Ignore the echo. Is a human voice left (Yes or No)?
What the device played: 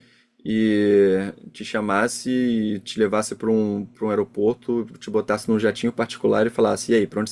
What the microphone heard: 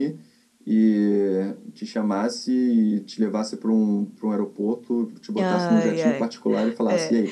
Yes